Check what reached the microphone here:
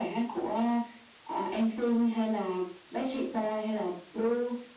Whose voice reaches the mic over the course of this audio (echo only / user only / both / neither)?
echo only